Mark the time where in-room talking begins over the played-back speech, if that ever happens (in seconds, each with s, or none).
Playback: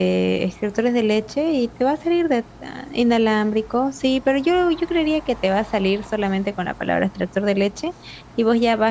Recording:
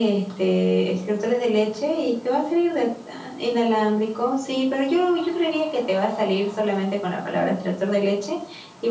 none